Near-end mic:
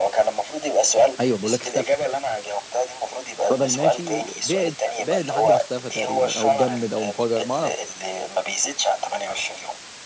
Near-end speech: present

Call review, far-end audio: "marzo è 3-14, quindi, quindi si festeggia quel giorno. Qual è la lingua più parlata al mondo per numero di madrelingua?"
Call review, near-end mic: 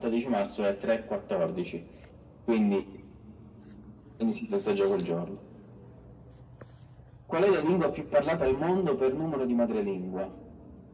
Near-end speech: none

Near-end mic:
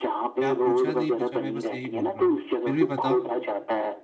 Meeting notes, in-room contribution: present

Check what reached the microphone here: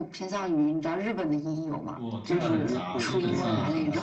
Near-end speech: present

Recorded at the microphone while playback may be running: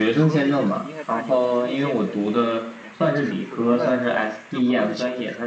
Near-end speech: present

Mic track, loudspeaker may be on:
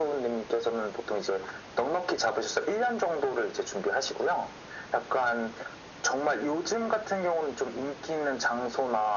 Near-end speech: none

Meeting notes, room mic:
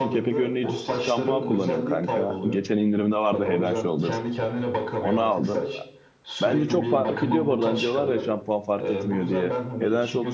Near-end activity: present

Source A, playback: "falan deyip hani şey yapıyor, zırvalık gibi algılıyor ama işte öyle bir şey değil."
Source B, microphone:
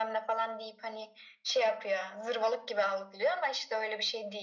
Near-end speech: none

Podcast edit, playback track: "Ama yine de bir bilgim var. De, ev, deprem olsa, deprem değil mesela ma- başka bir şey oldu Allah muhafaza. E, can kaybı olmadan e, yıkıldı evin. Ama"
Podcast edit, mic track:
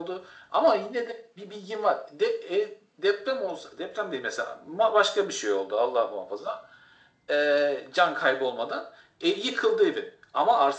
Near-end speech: none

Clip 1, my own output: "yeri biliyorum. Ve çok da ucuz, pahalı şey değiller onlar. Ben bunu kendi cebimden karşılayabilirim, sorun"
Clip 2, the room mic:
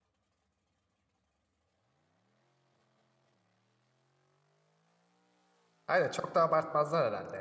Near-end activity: present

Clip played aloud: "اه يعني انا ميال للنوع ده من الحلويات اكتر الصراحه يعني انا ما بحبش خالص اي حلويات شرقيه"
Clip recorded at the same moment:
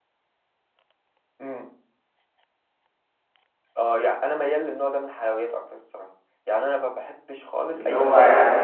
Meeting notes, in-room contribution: present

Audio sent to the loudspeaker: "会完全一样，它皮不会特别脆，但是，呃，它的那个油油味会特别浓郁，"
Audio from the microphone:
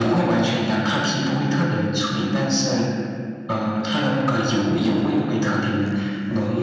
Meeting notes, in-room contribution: none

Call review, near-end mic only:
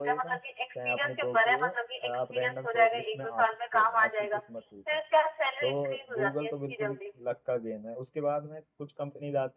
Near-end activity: present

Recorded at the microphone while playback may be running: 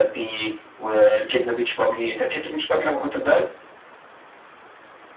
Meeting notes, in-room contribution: none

